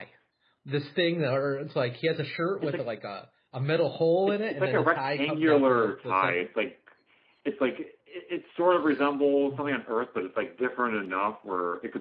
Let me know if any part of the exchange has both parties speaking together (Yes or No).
Yes